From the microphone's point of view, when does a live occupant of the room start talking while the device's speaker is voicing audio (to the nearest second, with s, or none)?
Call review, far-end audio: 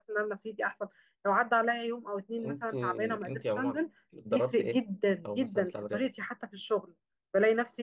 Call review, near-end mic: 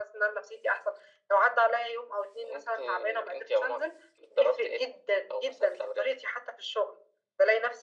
none